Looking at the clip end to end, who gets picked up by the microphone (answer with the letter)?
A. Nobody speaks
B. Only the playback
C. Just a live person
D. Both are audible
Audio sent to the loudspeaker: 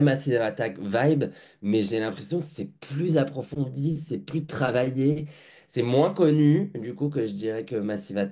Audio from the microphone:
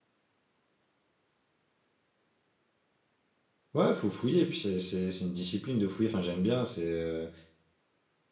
C